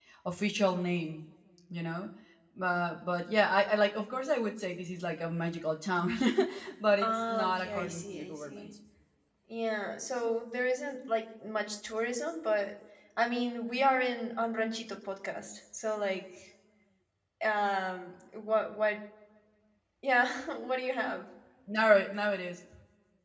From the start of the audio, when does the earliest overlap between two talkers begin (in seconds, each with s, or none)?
7.0 s